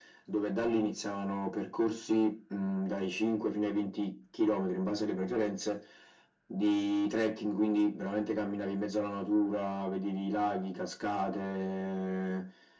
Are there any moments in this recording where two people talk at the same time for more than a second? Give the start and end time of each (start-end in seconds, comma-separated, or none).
none